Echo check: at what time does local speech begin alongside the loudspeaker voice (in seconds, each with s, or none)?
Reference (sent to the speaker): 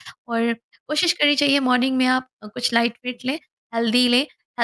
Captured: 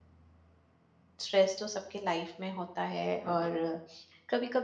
1.2 s